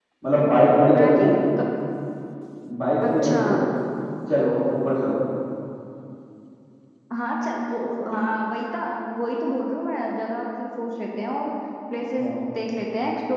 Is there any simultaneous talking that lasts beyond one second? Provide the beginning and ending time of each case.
none

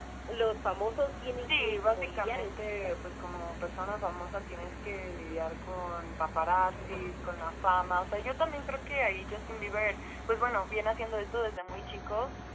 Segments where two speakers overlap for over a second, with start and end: 1.5-3.0

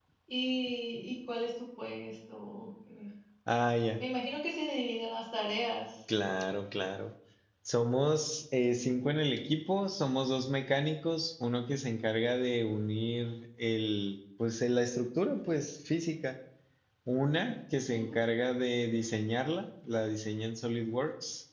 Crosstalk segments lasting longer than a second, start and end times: none

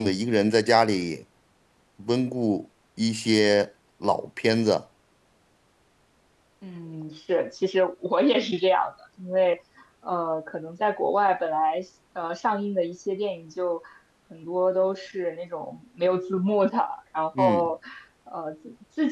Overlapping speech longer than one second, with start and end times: none

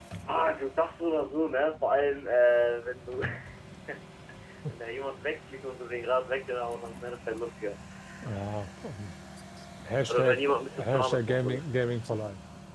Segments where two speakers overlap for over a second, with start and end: 10.1-11.6

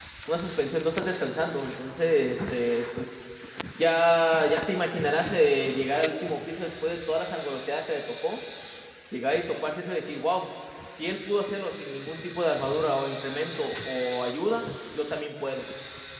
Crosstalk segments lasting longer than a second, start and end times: none

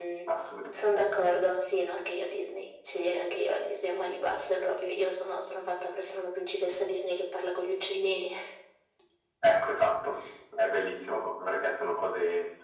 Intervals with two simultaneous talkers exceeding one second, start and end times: none

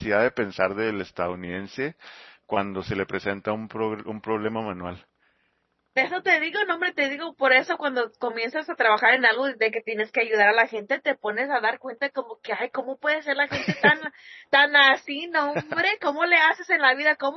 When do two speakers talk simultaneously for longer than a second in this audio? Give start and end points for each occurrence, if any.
none

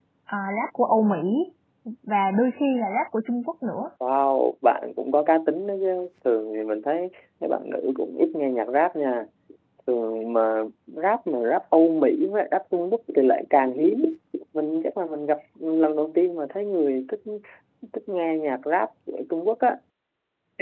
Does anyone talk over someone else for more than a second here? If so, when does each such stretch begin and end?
none

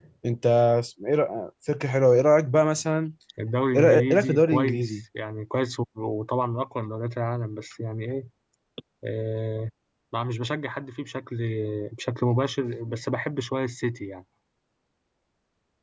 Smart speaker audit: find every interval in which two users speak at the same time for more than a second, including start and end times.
3.8-5.0

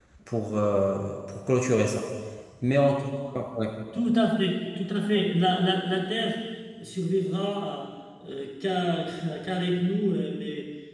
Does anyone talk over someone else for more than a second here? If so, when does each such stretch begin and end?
none

